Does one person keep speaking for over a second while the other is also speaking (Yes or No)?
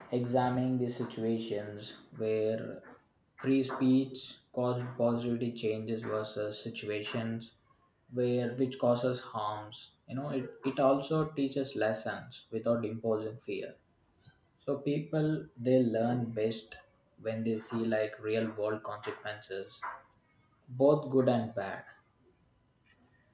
No